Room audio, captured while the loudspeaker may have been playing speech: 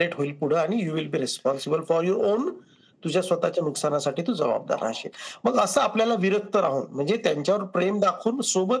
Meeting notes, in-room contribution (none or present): none